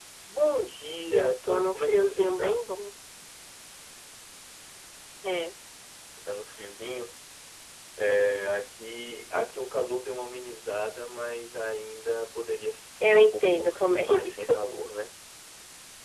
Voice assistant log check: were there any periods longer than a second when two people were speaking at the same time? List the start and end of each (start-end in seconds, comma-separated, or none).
1.1-2.7, 13.1-14.5